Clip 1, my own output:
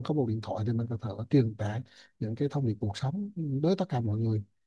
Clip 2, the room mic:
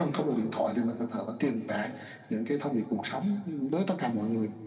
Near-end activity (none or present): none